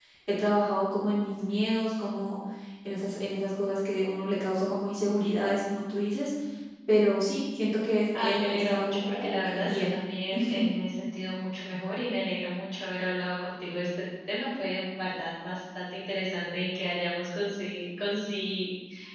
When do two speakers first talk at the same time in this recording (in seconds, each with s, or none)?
8.2 s